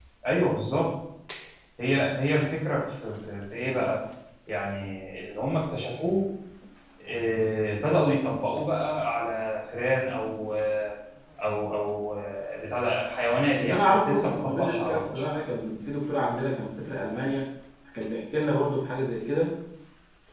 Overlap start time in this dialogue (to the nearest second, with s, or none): 14 s